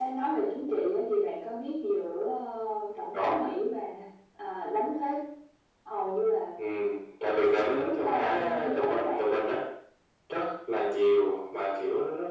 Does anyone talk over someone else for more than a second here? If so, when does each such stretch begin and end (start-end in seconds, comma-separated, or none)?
7.2-9.2